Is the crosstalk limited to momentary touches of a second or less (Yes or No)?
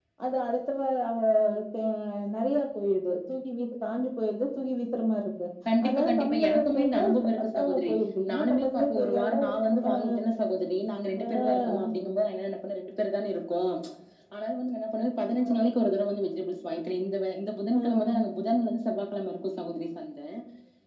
No